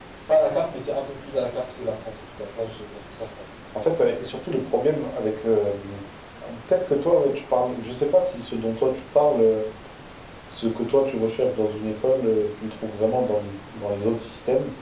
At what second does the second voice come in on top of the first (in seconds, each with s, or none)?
none